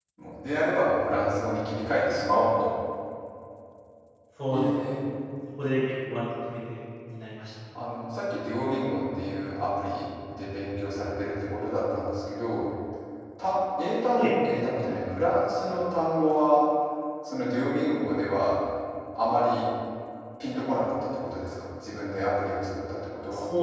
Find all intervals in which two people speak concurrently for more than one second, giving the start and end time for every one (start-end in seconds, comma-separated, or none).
none